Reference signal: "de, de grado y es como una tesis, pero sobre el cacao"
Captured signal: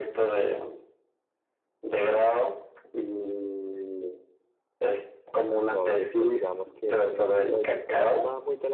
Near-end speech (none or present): present